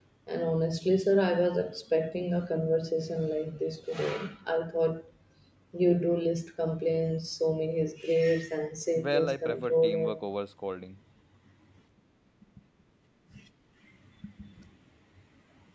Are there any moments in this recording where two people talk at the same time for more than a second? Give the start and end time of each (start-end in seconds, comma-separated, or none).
9.0-10.2